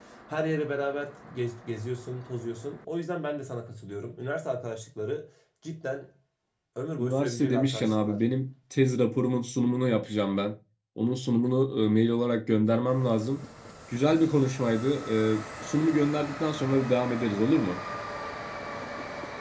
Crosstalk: present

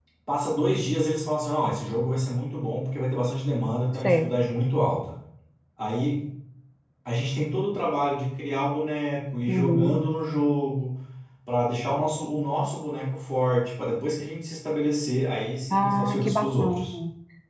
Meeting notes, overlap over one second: present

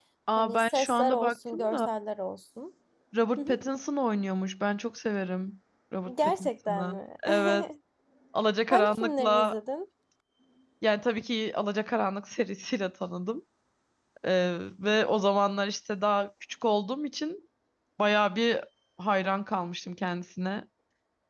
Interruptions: present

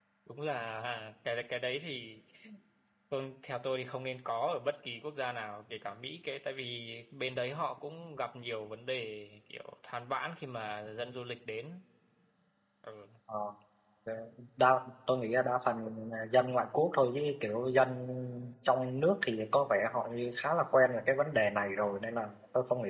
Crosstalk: none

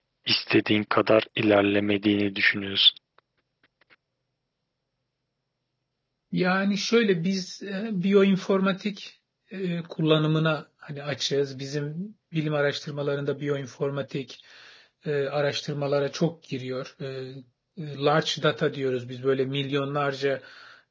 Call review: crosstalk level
none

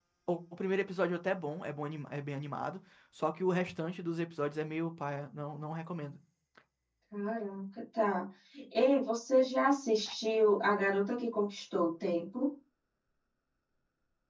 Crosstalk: none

